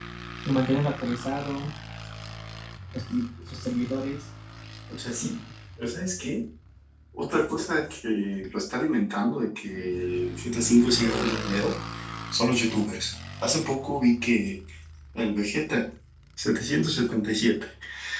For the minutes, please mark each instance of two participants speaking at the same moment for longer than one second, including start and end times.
none

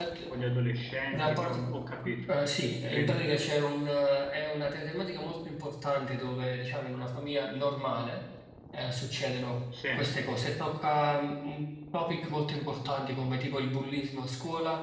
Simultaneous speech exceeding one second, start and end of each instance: none

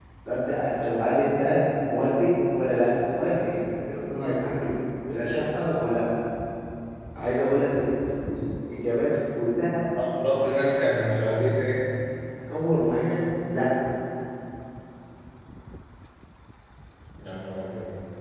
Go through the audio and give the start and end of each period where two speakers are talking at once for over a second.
none

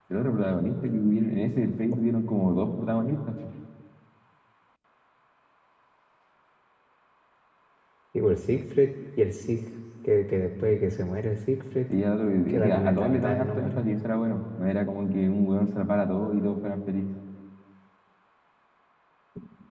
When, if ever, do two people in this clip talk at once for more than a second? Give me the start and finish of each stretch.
12.5-13.8

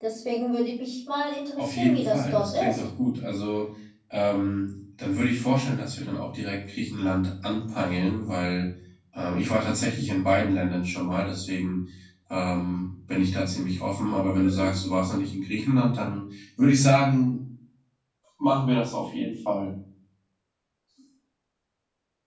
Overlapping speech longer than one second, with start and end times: 1.6-2.9

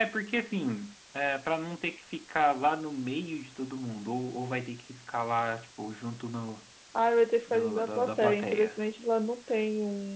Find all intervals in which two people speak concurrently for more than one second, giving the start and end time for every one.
7.5-8.8

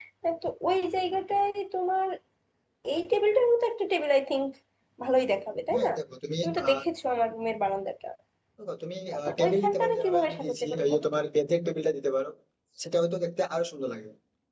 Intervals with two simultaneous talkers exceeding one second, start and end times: 9.4-11.2

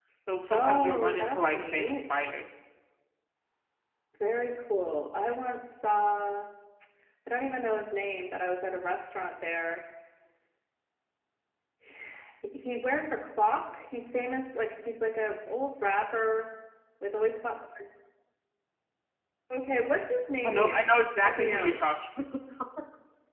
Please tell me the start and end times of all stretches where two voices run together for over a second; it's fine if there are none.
0.5-2.2, 20.4-21.9

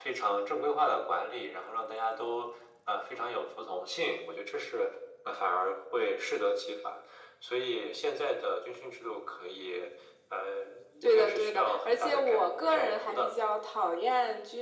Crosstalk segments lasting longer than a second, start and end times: 11.1-13.4

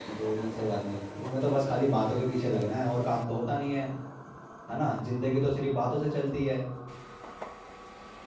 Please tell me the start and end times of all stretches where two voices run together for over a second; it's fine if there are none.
none

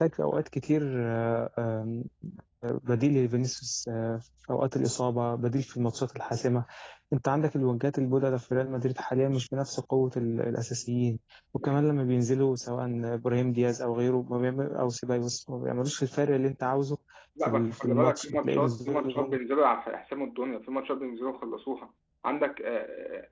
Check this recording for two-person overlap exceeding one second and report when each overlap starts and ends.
17.4-19.4

